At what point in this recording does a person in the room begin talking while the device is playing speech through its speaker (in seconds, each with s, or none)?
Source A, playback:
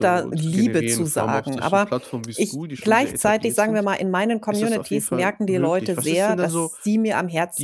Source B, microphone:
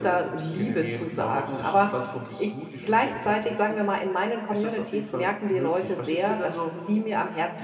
none